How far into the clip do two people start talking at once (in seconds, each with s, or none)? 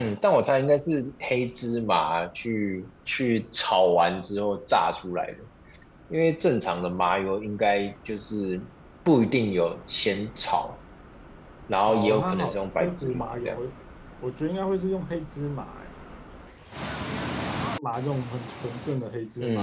11.9 s